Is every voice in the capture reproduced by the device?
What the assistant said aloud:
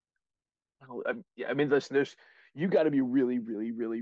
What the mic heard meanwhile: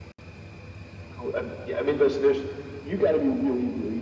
Yes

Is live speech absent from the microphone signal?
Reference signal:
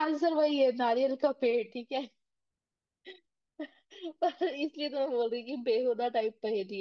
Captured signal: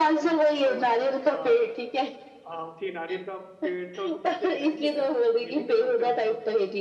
No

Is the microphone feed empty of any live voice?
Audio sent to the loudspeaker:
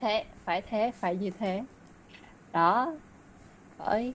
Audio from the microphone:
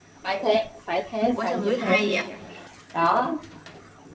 No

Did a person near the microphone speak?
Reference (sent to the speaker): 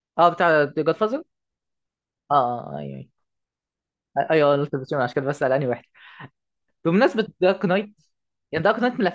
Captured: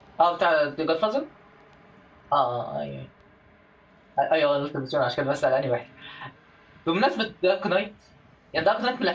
No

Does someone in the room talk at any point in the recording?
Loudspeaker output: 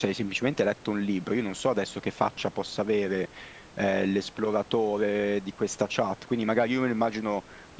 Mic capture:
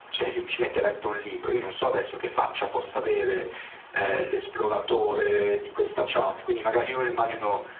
No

